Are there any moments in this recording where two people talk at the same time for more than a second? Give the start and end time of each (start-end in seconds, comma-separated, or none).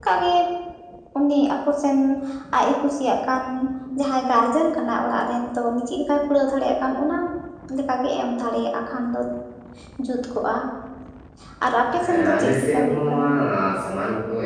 12.0-13.2